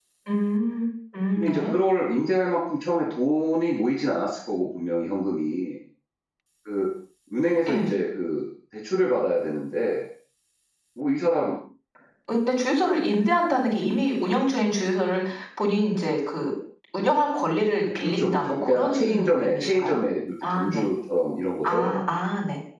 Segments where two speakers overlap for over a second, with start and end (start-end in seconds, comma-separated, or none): 18.0-20.0